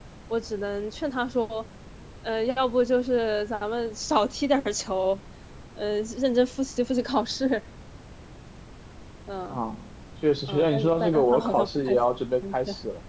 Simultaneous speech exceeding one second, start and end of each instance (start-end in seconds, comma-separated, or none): 10.5-11.9